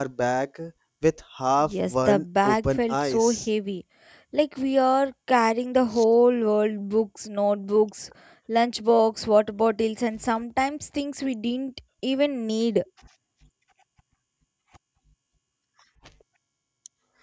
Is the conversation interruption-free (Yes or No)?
No